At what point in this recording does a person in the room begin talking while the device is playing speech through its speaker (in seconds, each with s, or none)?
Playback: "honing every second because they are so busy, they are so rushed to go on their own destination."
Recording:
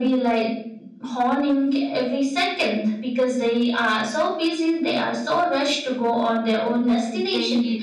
6.8 s